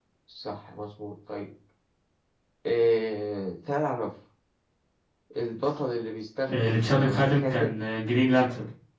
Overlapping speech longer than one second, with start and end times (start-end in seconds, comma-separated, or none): 6.5-7.8